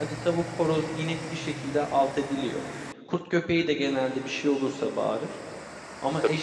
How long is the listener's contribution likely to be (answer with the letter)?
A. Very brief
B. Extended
A